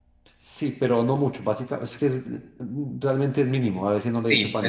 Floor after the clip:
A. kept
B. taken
B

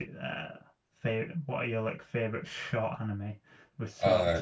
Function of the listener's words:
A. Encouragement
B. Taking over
A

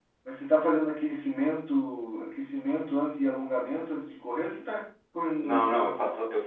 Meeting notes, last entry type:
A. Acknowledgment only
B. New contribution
B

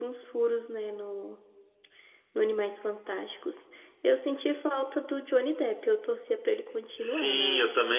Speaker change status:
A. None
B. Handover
B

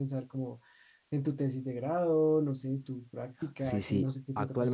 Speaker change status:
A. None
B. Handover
B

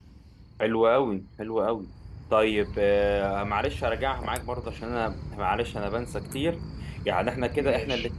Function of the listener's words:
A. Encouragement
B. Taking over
A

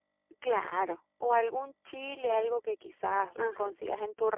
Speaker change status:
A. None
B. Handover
A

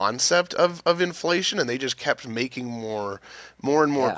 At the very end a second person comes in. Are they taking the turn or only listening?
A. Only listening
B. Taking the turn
A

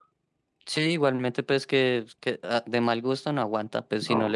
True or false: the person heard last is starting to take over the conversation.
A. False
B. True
A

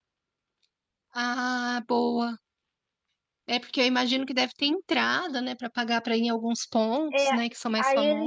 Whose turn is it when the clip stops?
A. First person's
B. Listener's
B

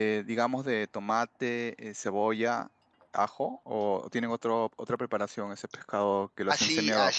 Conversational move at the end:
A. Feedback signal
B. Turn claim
B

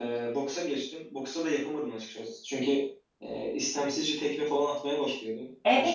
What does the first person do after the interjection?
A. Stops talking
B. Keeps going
A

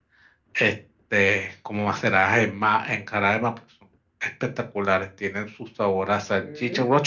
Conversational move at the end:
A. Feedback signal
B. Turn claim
A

